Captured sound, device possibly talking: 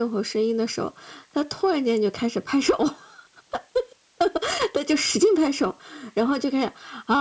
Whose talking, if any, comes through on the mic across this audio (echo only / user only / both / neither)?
echo only